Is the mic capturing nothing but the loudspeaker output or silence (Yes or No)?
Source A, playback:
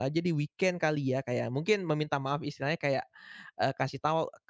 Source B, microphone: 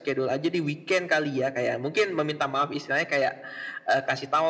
Yes